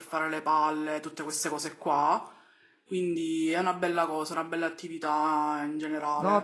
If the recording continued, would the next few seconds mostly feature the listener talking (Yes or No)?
Yes